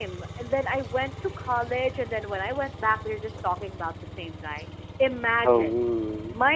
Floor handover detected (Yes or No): No